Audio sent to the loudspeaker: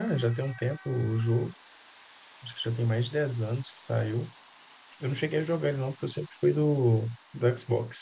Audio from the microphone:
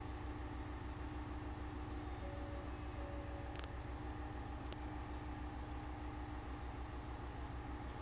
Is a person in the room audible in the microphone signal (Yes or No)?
No